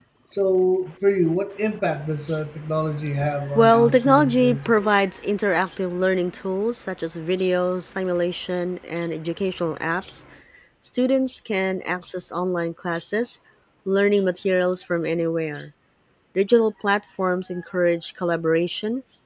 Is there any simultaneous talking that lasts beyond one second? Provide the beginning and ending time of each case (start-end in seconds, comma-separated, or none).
3.5-4.9